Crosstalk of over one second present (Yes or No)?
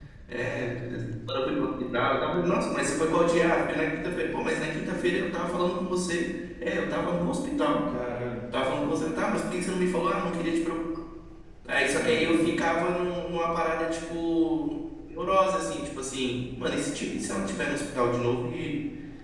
No